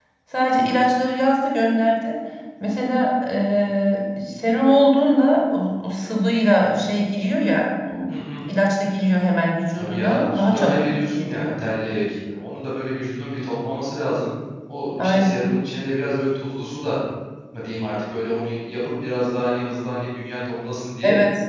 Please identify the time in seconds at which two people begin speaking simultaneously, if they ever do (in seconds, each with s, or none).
9.8 s